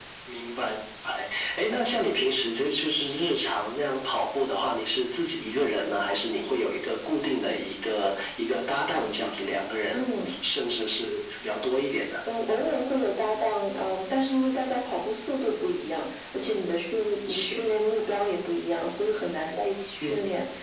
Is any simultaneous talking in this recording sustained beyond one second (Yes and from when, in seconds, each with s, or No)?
No